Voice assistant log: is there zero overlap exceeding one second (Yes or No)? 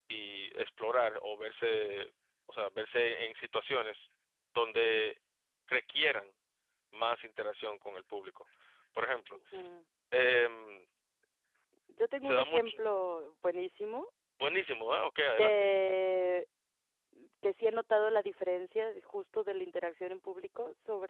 Yes